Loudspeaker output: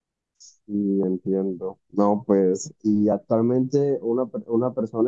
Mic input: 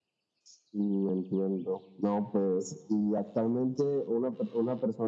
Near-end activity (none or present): none